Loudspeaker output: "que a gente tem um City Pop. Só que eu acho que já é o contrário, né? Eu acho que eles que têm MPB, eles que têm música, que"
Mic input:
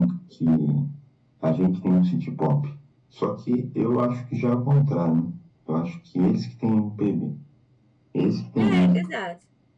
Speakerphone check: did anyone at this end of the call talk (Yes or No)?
Yes